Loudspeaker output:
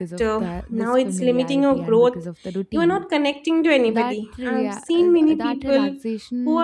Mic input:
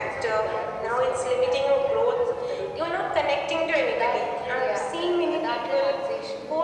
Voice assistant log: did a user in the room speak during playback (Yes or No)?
No